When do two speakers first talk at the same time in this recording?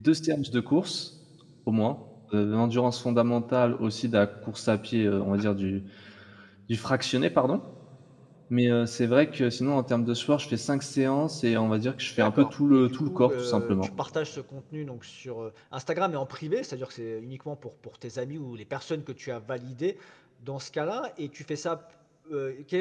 12.2 s

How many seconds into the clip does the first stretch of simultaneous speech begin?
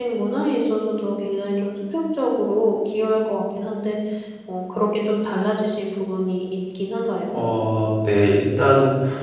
none

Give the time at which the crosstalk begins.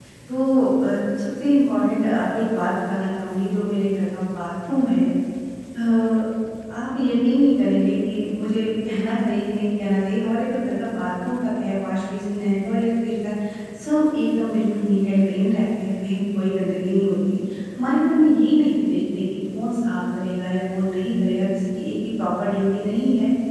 none

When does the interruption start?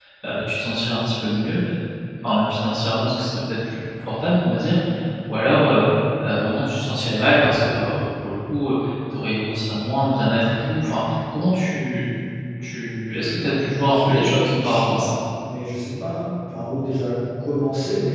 13.7 s

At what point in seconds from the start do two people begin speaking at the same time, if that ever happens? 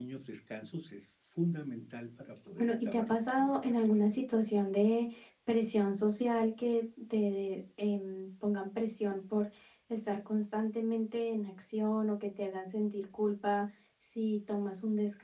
2.6 s

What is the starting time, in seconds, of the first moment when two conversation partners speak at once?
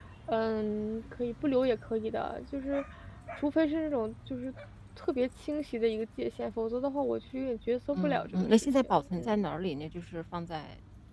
7.9 s

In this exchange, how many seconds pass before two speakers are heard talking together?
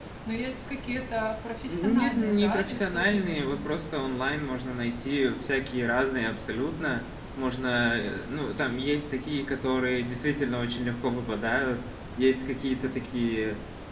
1.7 s

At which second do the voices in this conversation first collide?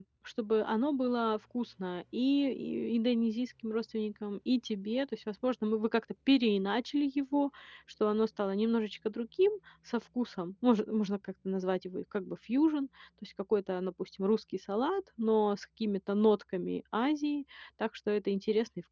none

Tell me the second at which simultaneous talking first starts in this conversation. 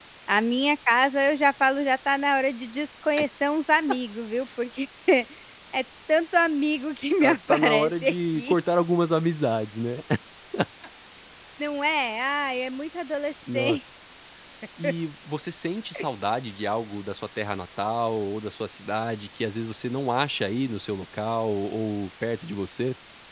7.2 s

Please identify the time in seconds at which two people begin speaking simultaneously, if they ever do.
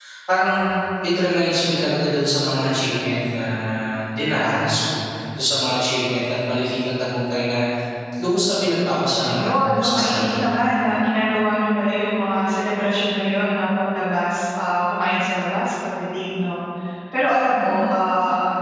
9.2 s

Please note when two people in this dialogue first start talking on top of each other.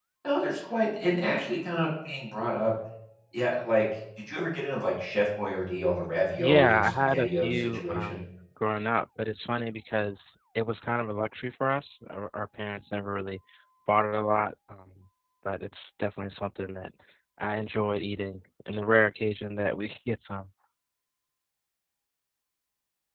6.4 s

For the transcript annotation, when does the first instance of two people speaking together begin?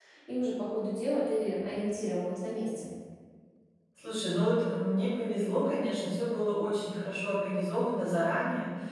none

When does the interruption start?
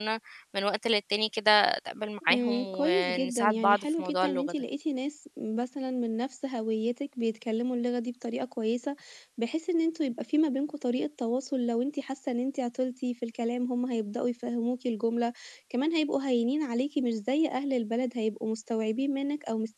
2.2 s

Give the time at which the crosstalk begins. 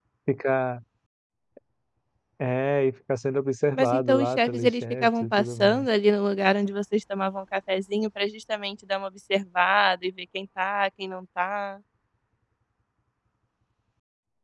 3.8 s

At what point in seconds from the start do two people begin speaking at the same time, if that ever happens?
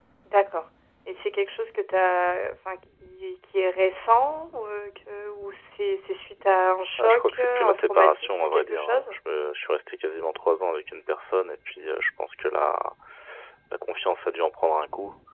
7.0 s

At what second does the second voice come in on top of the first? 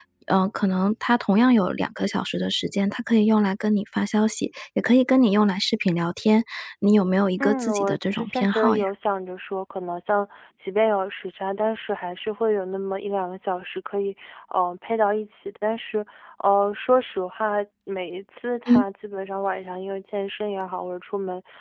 7.4 s

